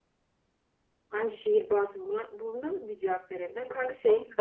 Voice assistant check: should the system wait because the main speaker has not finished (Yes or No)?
Yes